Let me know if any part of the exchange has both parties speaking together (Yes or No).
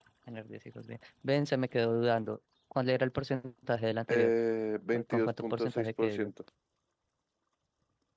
Yes